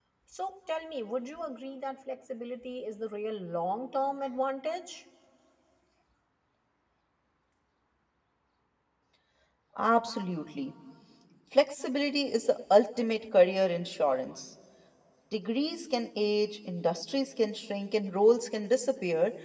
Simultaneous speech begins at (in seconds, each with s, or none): none